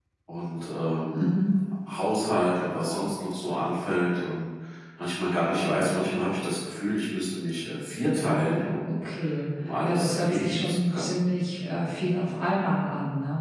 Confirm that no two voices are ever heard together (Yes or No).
No